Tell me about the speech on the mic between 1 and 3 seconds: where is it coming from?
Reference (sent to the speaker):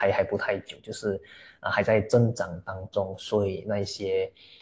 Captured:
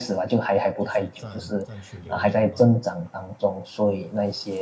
both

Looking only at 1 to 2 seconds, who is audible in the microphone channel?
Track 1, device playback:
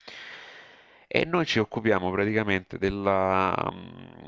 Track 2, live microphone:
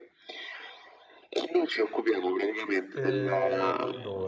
echo only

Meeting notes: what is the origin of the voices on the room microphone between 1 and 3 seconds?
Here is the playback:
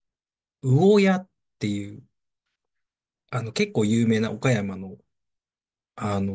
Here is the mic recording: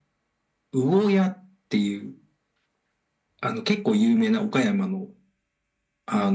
echo only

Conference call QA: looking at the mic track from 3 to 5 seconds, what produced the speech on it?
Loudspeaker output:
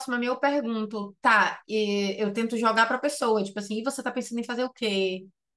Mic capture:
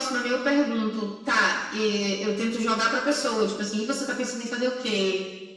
echo only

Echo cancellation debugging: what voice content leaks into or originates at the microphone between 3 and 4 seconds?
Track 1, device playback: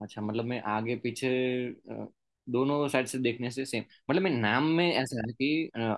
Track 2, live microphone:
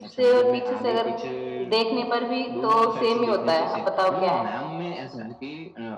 both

